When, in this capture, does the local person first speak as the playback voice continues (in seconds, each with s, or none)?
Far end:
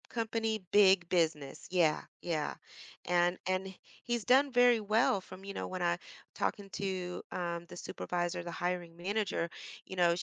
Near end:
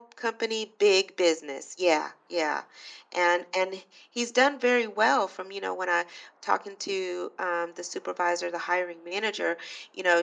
none